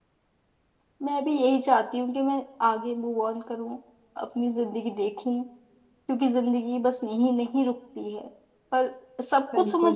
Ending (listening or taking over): taking over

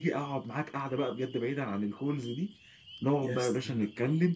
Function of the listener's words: listening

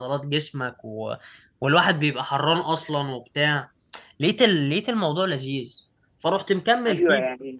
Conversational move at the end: taking over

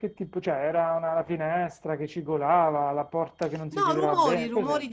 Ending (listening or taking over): taking over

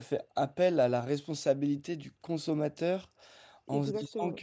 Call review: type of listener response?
listening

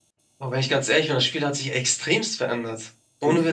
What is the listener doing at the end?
taking over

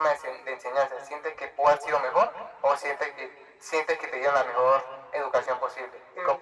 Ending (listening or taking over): taking over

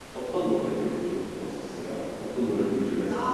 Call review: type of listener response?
taking over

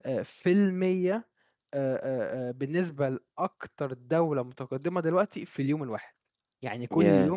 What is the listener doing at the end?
listening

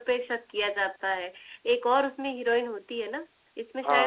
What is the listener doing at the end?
taking over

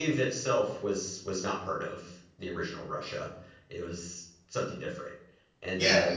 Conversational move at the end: taking over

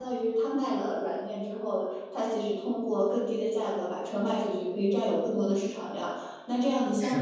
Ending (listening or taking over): listening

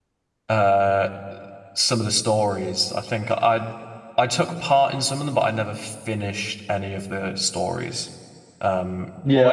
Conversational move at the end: taking over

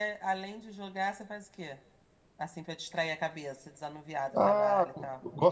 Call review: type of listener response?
taking over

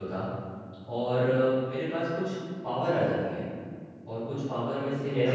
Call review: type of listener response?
listening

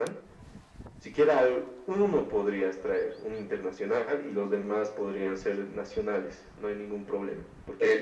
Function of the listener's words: listening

